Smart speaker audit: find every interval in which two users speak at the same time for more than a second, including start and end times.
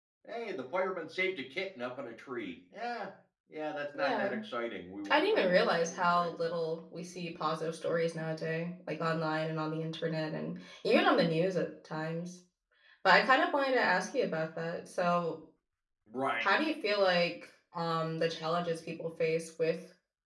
5.1-6.3

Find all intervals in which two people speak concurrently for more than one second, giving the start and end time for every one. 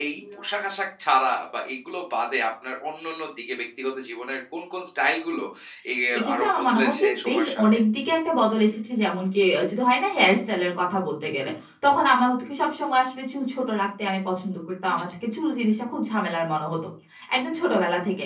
6.3-7.6

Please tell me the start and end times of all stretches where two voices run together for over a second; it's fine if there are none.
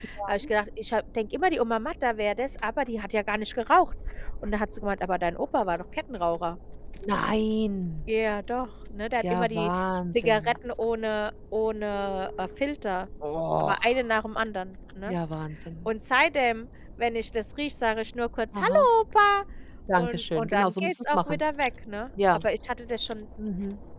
20.0-21.4

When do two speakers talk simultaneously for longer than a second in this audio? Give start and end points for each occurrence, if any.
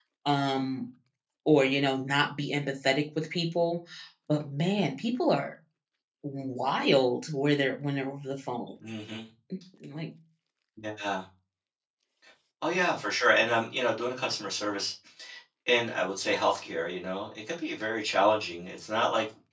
none

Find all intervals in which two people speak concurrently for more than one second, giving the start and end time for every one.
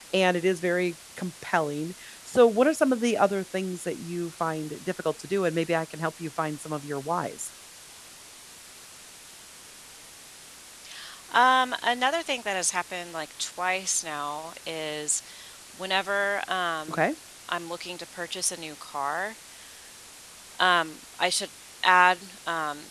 none

